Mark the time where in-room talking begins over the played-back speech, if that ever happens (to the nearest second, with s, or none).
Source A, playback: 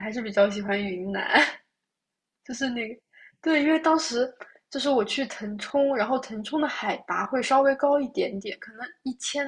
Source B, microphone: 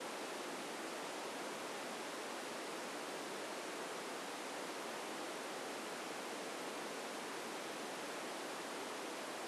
none